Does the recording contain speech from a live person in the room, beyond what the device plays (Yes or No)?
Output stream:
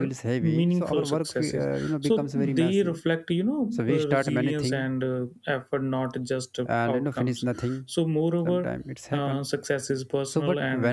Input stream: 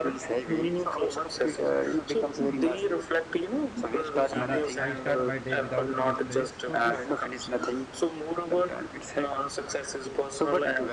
Yes